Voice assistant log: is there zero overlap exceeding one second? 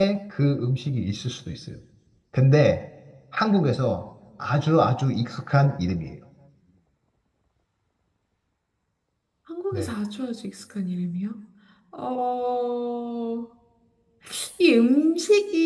Yes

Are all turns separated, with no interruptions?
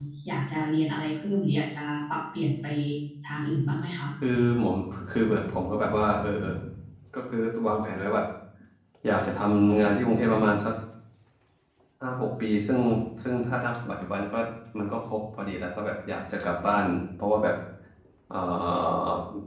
Yes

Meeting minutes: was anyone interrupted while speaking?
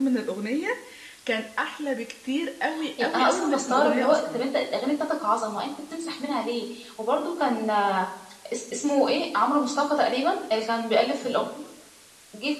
Yes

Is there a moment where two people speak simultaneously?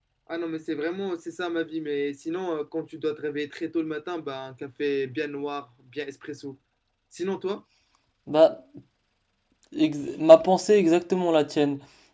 No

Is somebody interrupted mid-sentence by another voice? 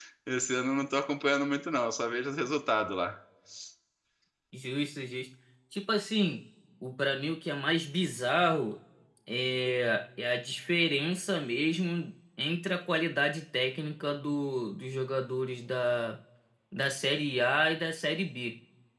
No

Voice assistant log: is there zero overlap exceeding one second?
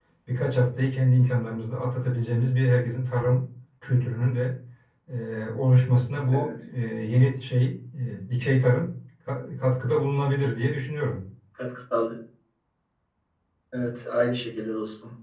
Yes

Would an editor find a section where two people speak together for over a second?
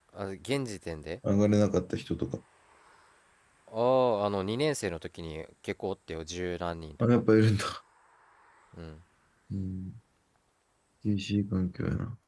No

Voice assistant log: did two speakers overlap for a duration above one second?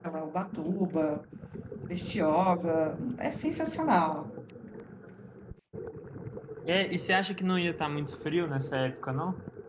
No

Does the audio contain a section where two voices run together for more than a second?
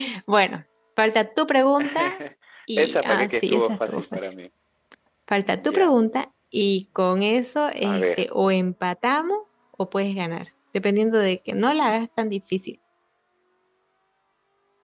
Yes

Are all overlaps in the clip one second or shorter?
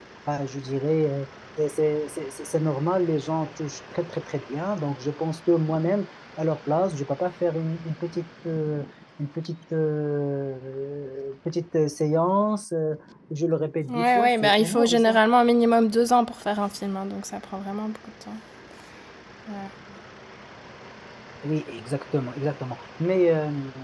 No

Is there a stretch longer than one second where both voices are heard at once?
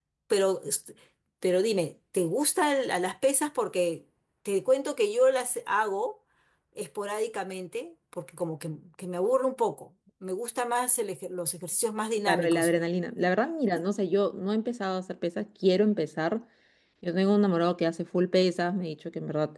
No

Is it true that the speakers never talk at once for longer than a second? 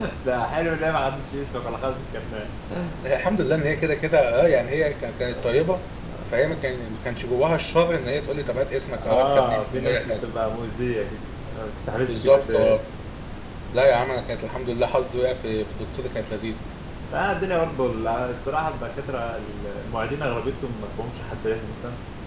No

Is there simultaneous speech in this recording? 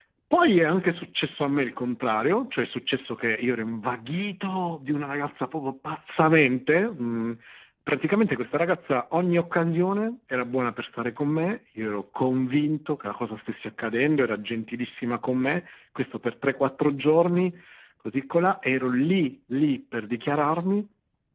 No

